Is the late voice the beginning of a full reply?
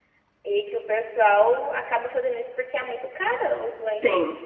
Yes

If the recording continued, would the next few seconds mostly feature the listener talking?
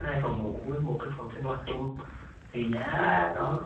No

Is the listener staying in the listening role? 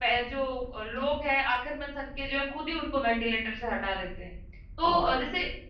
Yes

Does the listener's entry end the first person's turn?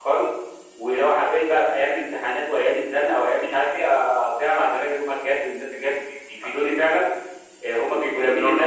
No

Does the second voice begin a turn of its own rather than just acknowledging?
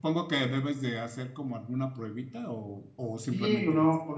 Yes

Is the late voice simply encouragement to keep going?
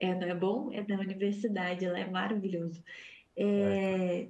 Yes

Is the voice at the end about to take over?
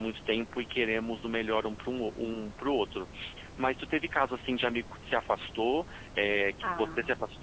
No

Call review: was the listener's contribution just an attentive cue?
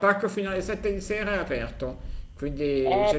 No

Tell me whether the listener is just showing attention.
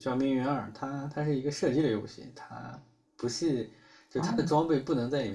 Yes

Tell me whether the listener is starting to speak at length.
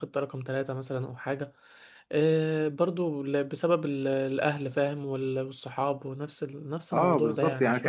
Yes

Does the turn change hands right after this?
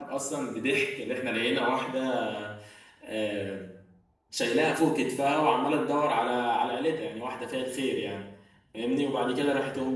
No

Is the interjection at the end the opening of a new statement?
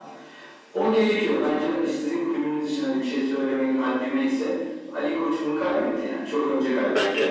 No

